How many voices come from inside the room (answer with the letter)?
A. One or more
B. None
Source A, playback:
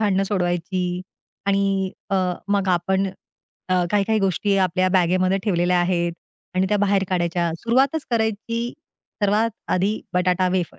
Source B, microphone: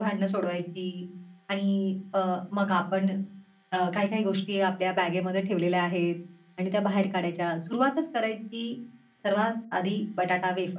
B